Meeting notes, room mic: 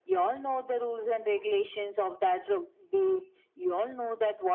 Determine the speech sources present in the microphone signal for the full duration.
echo only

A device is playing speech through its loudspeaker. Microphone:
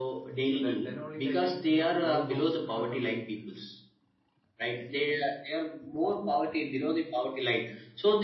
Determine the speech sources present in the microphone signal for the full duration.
both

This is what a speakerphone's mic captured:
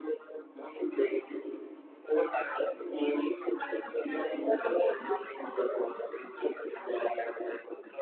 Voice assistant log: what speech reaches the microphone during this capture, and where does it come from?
echo only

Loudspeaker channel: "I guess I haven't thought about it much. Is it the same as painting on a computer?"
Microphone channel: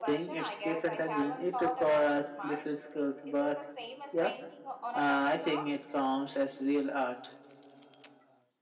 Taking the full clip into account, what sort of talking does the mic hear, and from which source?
both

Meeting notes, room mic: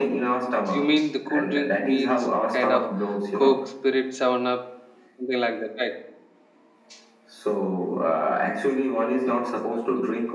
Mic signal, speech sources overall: both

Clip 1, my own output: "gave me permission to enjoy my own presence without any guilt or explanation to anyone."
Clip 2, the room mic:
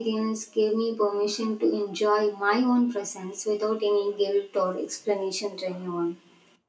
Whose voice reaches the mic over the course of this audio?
echo only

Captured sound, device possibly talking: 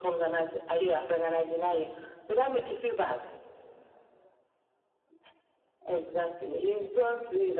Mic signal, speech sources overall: echo only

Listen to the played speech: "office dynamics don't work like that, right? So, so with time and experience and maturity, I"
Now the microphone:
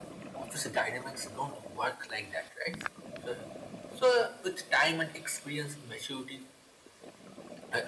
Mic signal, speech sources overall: echo only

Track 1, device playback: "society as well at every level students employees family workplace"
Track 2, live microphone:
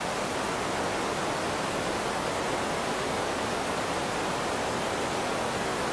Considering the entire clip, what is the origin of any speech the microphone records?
neither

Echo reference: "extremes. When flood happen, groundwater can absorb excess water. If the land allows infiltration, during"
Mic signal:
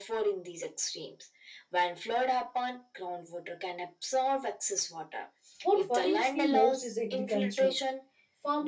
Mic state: both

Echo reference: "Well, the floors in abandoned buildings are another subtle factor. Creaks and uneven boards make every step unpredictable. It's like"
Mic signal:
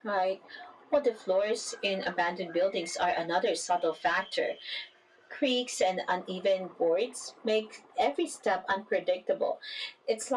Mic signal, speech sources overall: echo only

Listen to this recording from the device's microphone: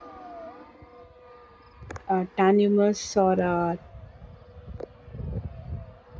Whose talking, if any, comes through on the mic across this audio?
user only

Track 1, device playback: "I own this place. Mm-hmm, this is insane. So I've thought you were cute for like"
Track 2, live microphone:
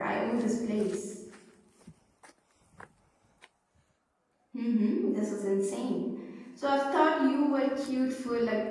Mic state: echo only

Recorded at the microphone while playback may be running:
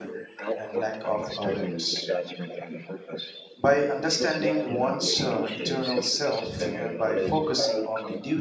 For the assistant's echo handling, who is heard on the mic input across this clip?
both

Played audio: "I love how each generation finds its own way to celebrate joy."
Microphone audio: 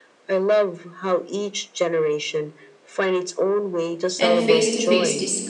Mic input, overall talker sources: both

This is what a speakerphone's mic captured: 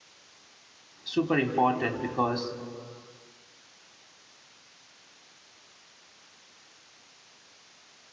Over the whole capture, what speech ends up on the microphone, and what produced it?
user only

